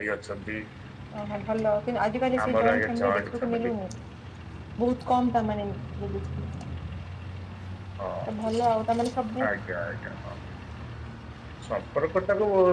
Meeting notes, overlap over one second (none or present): present